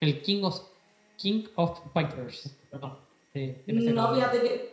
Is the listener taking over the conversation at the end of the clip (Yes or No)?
Yes